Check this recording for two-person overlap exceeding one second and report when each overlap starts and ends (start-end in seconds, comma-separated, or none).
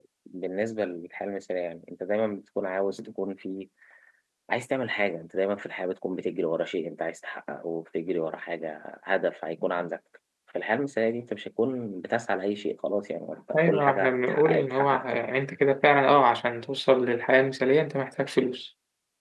13.6-15.2